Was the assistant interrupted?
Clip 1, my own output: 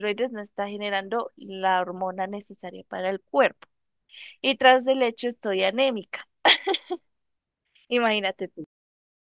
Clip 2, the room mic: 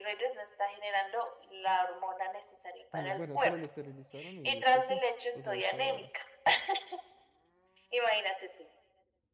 Yes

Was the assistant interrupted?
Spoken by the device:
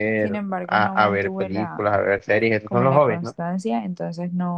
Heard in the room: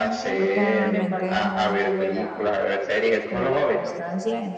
Yes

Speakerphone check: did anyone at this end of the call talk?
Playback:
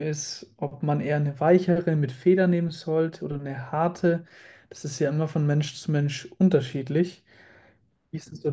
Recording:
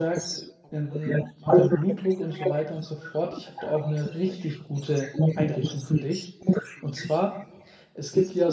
Yes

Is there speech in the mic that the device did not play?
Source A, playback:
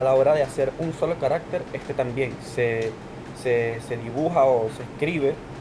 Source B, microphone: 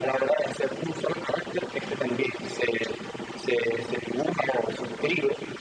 No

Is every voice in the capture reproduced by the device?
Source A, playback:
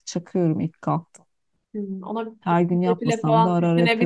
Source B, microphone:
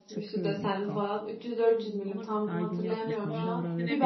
No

